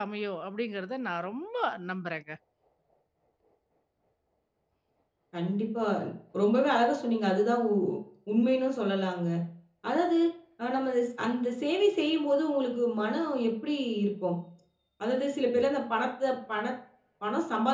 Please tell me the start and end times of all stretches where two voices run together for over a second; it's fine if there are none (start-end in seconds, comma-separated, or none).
none